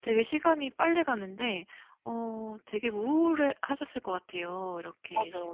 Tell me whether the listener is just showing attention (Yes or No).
No